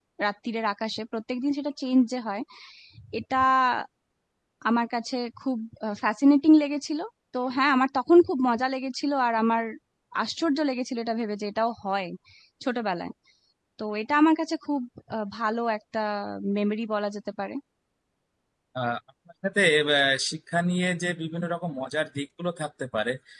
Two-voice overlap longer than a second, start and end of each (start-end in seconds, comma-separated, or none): none